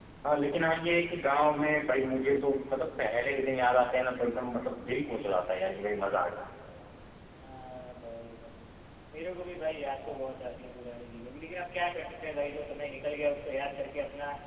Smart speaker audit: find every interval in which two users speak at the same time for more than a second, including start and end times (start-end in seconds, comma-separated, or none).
none